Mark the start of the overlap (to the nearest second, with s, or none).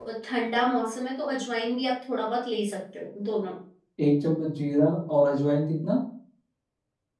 none